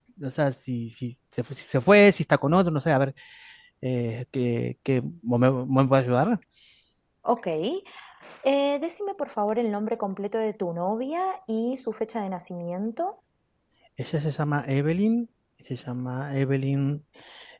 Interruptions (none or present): none